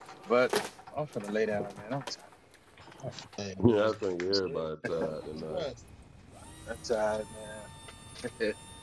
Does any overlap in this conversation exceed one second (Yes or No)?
Yes